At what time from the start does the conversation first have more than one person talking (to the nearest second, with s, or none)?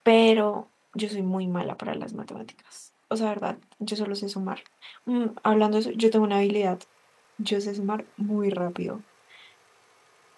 none